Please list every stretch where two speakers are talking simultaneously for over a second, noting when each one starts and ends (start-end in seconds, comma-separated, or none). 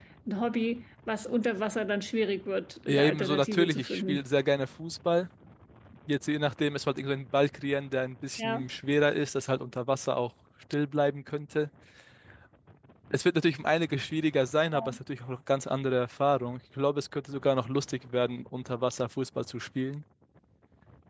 2.9-4.2